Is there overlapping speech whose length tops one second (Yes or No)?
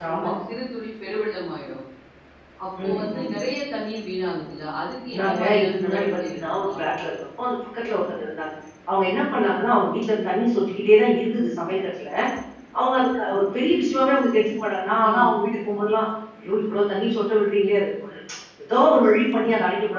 Yes